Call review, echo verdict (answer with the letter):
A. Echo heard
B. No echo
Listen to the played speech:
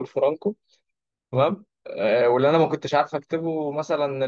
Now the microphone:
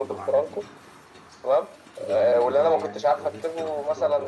A